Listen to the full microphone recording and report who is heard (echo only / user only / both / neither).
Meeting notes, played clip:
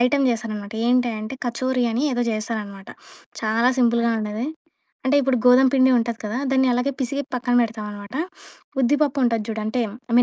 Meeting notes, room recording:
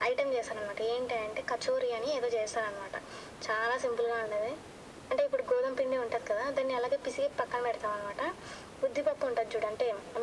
echo only